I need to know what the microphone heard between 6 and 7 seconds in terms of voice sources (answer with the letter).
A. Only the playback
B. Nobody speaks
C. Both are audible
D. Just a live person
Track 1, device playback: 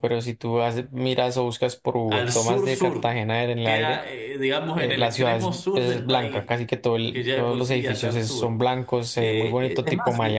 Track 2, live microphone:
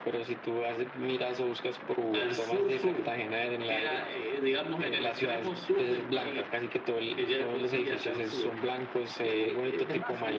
A